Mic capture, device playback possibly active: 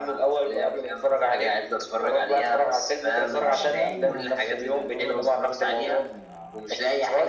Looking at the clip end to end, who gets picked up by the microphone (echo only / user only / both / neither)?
both